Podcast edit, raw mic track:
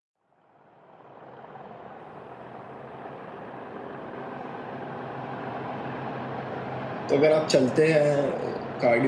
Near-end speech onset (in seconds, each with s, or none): 7.1 s